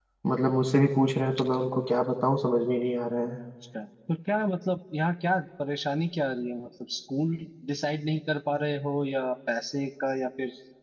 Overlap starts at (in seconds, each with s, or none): none